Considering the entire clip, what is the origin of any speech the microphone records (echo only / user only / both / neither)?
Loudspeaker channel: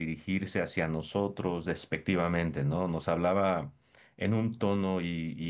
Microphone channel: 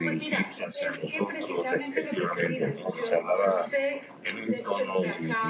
both